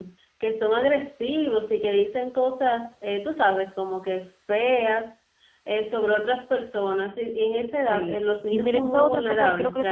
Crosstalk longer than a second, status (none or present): present